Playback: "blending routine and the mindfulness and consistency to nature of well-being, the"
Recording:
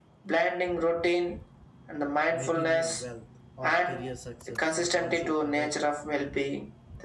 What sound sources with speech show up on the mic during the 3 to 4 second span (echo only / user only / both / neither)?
both